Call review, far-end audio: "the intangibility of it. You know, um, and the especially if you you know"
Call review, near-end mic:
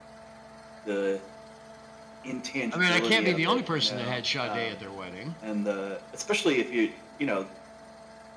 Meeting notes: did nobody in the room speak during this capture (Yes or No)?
No